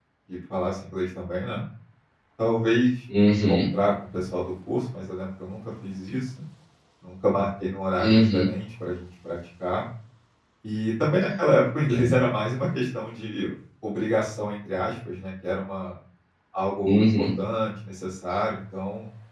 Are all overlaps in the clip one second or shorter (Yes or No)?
Yes